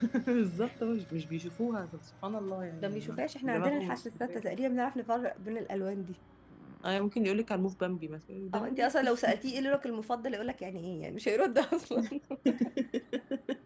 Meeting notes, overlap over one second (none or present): present